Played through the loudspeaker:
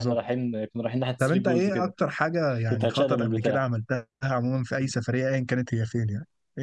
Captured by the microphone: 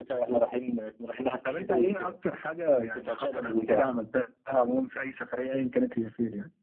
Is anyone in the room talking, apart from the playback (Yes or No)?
No